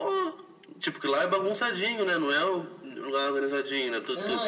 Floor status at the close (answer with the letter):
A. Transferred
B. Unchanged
A